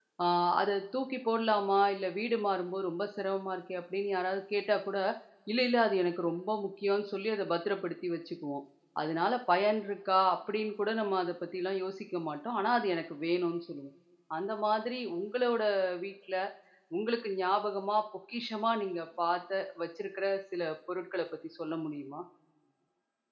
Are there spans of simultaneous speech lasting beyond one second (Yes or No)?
No